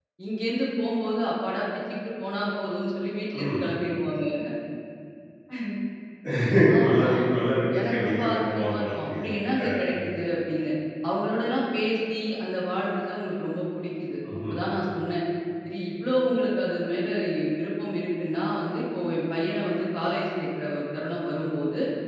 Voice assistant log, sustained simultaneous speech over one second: present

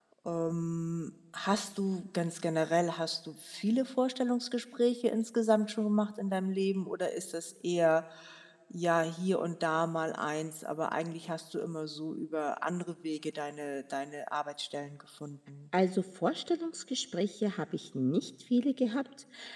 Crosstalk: none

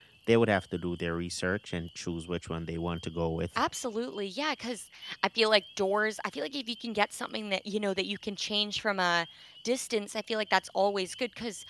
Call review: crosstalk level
none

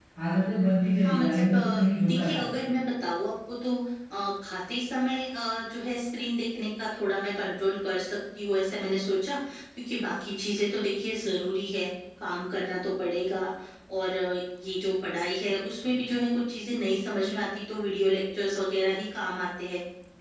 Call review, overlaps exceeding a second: present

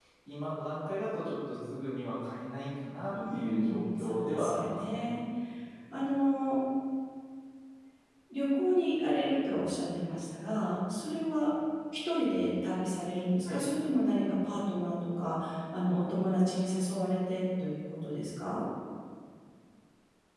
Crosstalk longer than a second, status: present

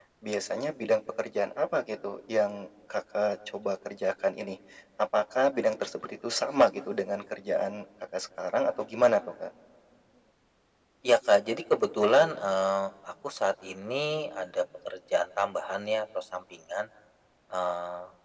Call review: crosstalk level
none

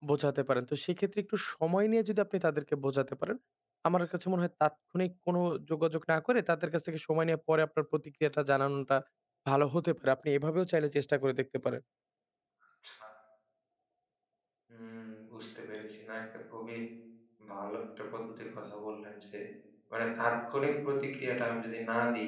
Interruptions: none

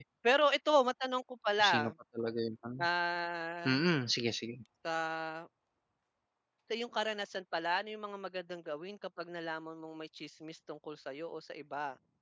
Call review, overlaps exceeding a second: none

